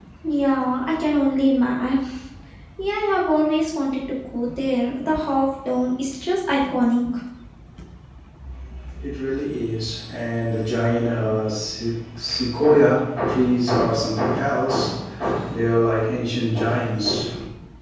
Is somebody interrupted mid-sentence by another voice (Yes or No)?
No